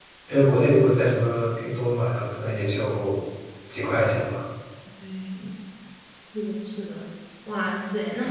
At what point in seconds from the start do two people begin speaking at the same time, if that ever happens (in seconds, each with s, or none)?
none